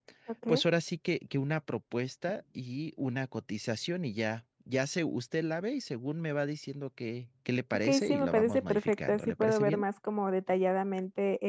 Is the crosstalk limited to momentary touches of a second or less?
No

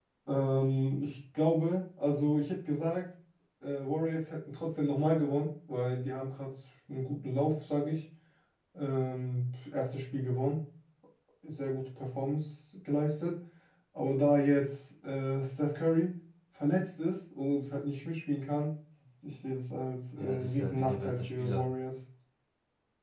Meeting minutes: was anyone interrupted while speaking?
Yes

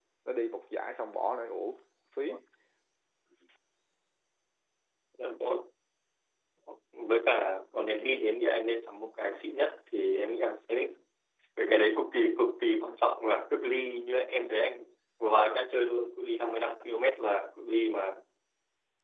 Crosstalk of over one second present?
No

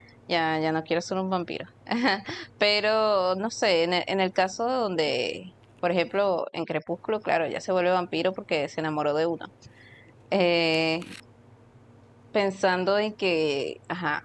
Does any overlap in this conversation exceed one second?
No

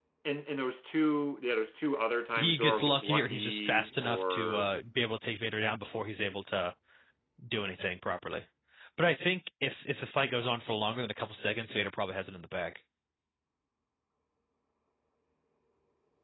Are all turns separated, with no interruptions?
No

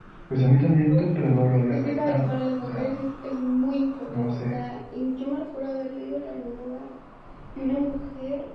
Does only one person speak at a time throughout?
No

